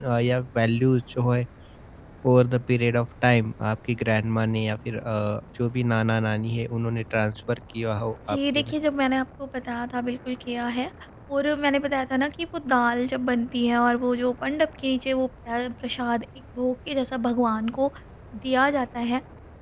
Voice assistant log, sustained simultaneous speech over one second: none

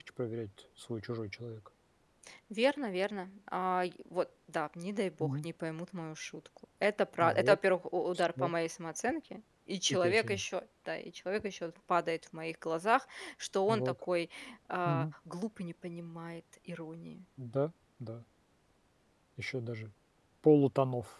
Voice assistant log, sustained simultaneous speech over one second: none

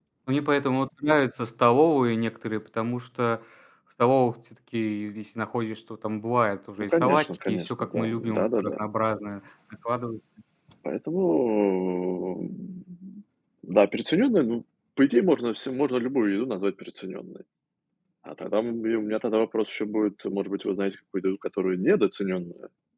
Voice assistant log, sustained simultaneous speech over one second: present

